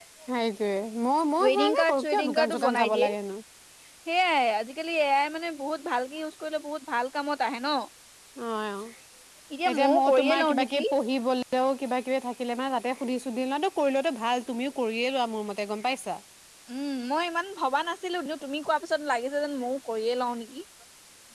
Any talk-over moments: Yes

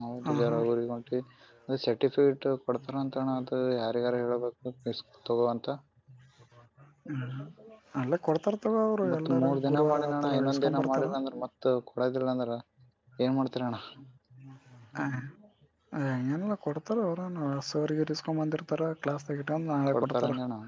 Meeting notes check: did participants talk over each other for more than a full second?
Yes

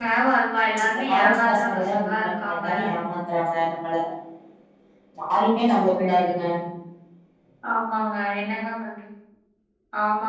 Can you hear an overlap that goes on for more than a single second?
Yes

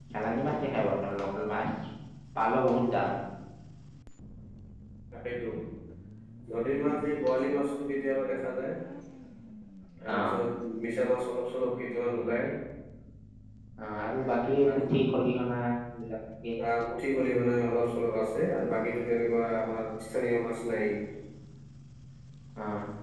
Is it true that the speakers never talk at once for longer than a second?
Yes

